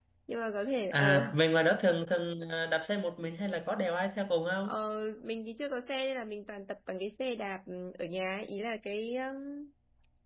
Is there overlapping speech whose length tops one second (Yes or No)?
No